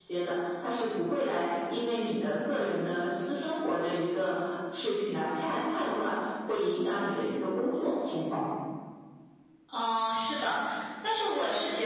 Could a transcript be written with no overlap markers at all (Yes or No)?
Yes